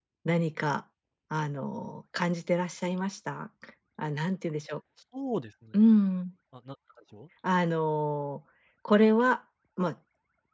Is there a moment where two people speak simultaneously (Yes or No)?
No